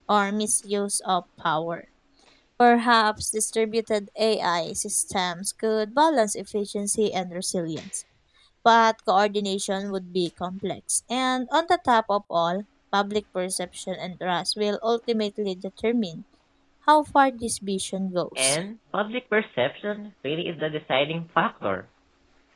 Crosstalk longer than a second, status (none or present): none